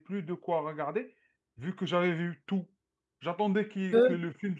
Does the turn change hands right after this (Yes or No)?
No